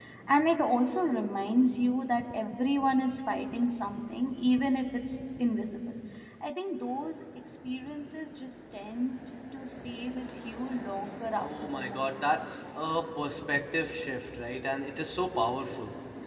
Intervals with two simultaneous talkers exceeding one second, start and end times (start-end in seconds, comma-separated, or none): 11.4-12.9